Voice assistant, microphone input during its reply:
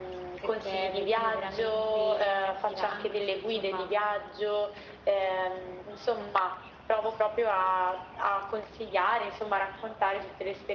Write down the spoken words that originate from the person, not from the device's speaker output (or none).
perché vedevo veramente chiacchierandoci, insomma,